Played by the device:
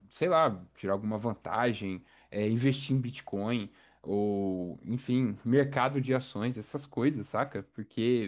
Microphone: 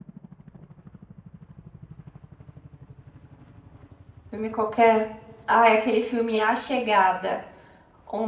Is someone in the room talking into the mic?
Yes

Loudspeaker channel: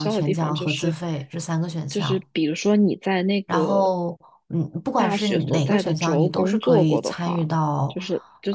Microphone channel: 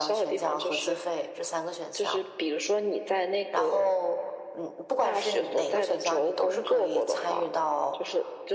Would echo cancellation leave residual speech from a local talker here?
No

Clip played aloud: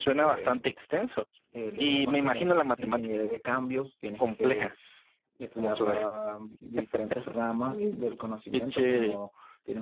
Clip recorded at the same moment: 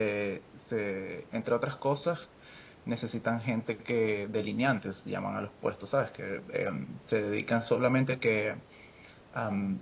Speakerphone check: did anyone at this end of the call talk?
Yes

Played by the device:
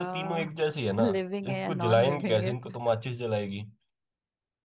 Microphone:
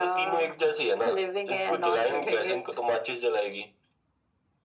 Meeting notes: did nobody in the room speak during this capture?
Yes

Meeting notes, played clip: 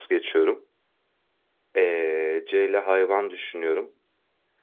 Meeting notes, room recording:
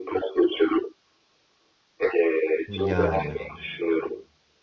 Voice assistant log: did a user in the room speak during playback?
Yes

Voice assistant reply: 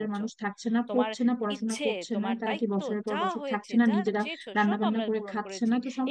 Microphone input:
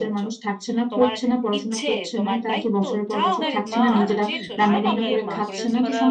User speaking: Yes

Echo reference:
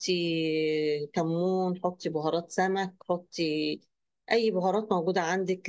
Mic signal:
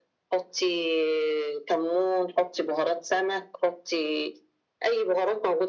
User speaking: No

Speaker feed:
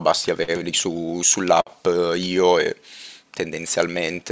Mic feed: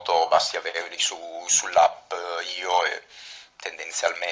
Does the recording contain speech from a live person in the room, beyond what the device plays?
No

